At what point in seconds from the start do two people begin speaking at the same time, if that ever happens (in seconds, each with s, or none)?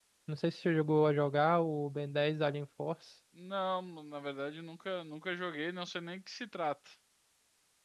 none